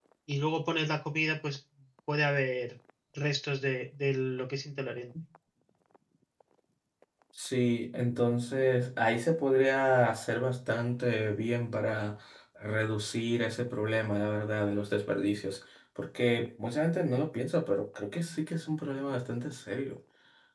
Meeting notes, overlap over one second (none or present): none